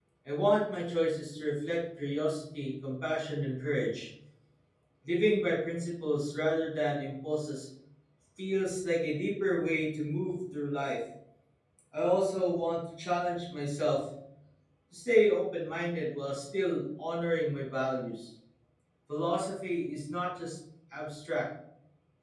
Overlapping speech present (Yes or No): No